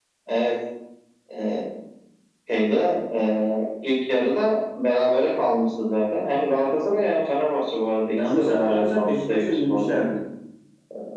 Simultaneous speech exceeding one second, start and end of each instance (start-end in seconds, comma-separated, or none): 8.1-10.0